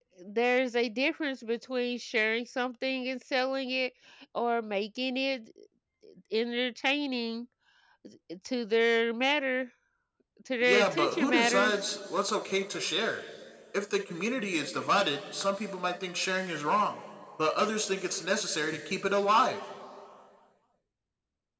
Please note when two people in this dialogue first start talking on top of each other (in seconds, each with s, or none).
10.6 s